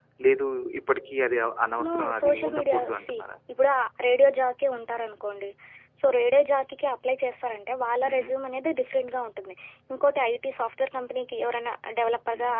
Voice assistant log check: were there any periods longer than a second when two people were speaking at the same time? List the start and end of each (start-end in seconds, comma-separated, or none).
1.8-3.1